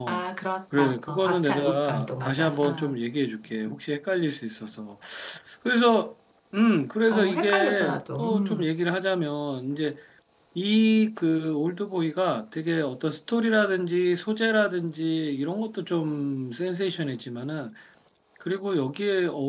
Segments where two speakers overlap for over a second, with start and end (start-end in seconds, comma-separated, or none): 0.8-3.0, 7.1-8.7